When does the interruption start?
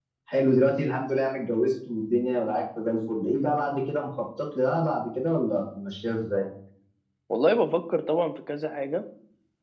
none

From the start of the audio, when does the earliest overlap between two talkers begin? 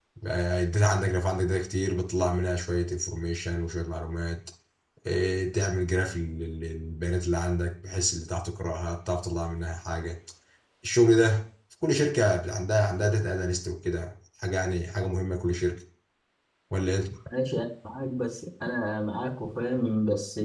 none

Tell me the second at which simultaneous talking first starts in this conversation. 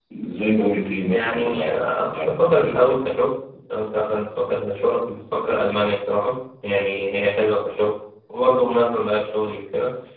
1 s

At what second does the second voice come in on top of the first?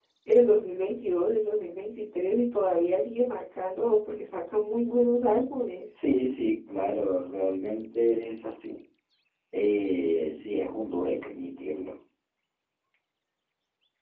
none

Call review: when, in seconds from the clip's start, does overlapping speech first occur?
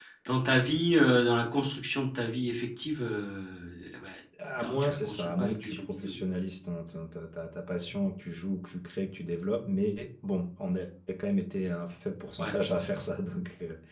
5 s

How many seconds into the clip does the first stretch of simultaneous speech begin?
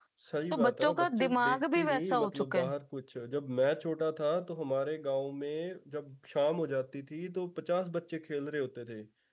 1 s

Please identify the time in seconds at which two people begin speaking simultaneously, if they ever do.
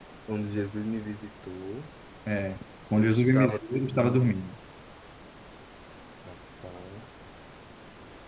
3 s

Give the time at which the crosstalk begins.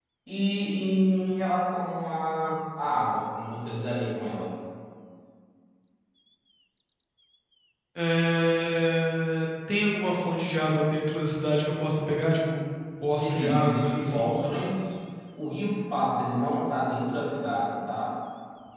13 s

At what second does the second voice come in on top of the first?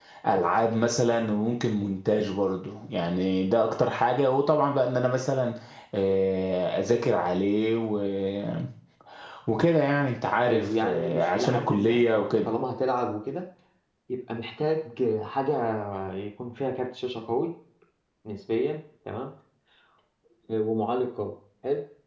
10 s

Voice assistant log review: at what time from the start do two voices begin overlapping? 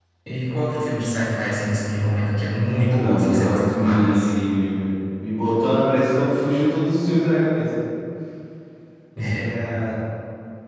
3 s

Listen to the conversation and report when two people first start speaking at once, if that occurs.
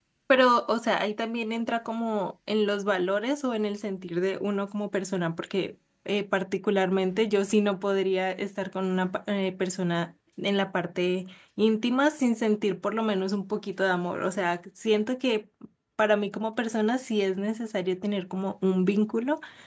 none

